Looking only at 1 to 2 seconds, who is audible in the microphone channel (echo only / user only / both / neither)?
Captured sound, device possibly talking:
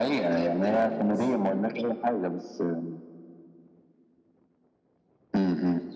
both